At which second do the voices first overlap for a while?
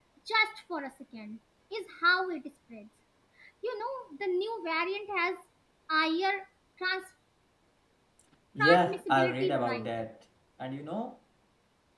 9 s

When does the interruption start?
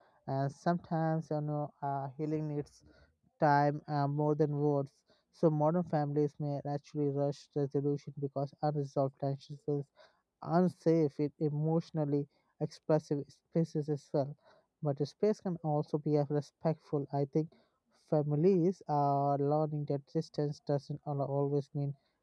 none

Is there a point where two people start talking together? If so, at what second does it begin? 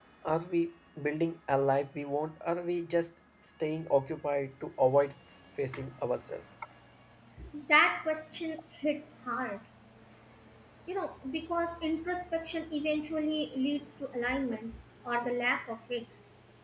none

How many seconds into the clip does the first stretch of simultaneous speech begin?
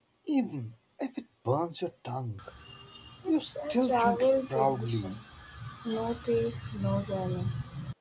3 s

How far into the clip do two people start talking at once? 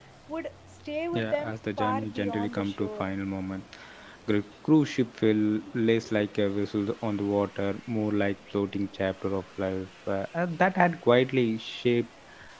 1 s

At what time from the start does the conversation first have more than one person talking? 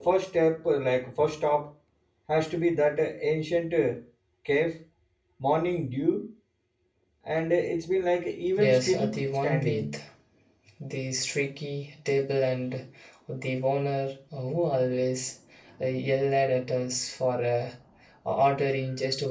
9 s

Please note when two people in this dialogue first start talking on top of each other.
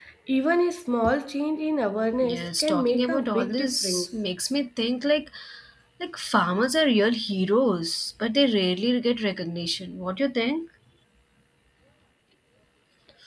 2 s

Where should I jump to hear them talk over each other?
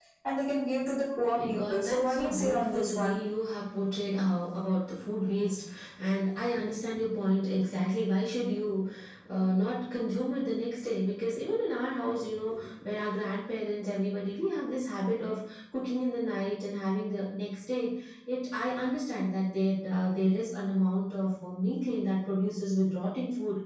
1 s

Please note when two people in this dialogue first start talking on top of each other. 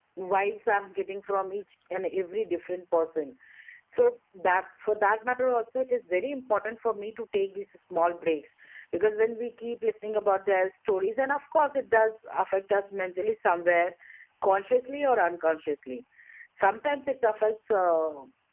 none

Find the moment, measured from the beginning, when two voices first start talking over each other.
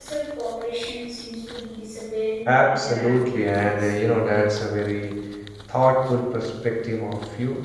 2 s

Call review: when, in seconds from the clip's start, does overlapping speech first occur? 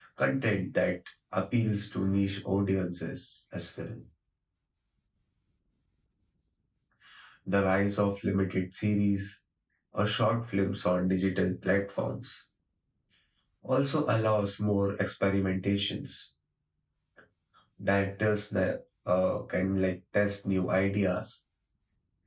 none

